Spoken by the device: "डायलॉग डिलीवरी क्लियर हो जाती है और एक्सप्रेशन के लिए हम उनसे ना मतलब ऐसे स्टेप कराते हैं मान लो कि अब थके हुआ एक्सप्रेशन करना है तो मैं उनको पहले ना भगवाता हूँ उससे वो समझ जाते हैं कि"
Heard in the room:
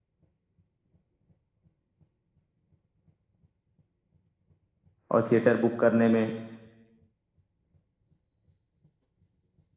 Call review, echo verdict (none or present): none